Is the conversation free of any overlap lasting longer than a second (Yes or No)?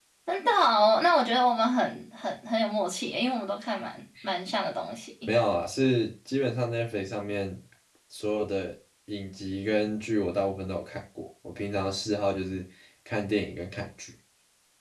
Yes